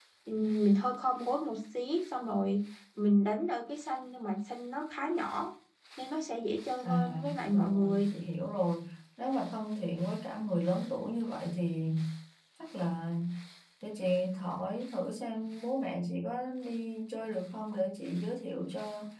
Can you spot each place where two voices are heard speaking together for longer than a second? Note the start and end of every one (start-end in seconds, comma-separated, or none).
6.8-8.1